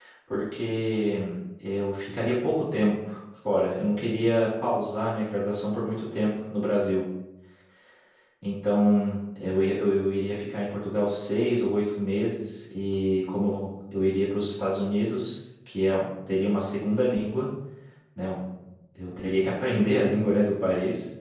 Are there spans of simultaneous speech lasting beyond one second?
No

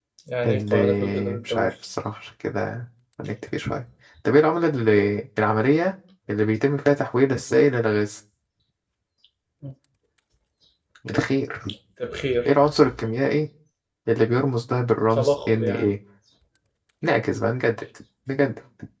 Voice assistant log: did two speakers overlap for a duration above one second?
Yes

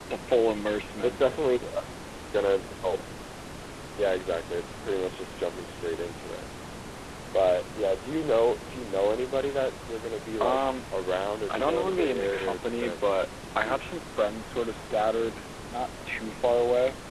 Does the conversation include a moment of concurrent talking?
Yes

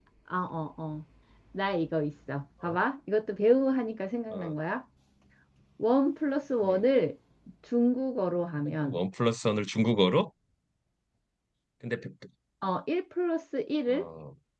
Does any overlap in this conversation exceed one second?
No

